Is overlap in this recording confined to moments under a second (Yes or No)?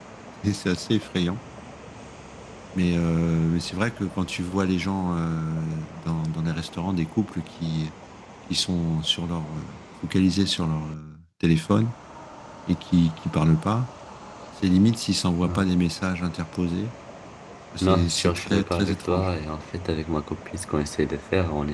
No